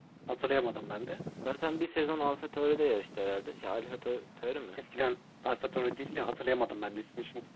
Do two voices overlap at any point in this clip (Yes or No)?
No